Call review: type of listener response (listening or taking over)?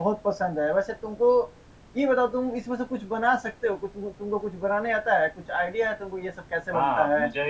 taking over